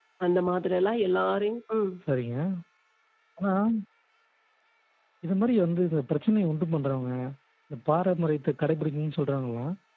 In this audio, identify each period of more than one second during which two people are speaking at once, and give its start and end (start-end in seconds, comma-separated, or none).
none